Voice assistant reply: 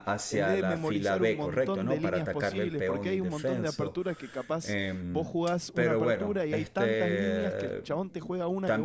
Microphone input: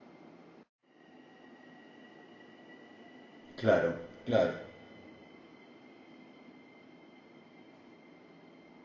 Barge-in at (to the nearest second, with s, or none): 4 s